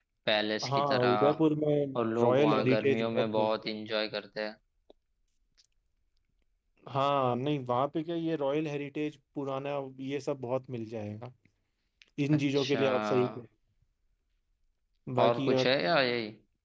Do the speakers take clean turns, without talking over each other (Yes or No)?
No